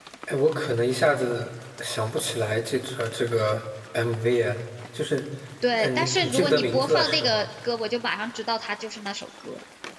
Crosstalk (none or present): present